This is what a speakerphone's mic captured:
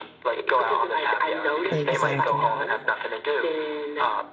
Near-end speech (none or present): present